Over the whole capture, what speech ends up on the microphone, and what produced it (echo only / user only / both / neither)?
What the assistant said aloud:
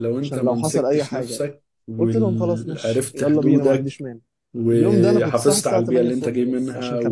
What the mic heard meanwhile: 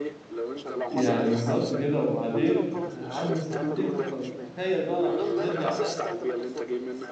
both